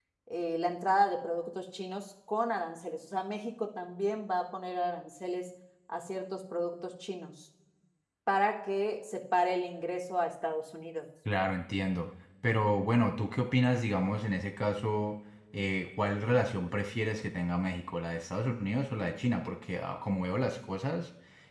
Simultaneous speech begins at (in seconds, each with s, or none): none